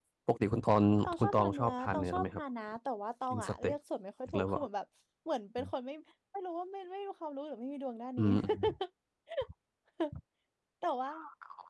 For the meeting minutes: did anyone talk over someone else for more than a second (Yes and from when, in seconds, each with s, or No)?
Yes, from 1.2 s